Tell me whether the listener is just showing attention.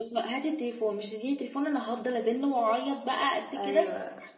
No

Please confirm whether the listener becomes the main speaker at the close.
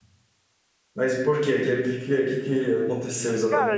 Yes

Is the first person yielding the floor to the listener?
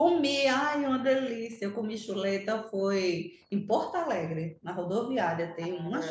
Yes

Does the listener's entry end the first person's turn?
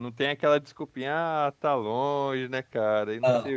No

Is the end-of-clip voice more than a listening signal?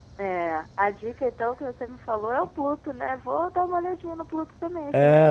Yes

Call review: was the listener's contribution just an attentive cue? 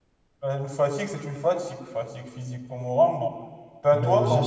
No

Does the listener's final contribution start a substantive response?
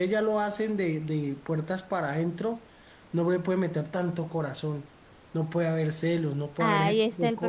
Yes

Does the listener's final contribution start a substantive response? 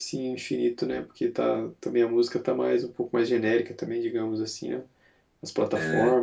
Yes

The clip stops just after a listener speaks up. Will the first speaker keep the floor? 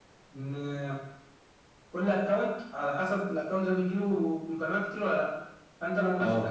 Yes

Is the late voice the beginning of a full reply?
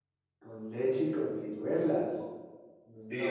Yes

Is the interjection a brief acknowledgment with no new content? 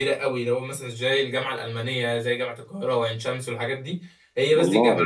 Yes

